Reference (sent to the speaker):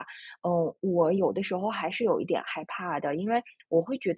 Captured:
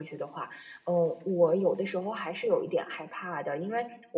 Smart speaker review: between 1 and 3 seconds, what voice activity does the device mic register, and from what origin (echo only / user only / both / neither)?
echo only